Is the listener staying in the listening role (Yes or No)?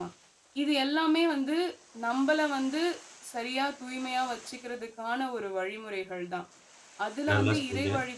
Yes